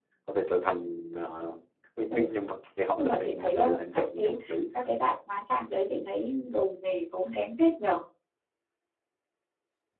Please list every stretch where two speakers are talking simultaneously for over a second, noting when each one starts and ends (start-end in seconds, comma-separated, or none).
3.0-4.4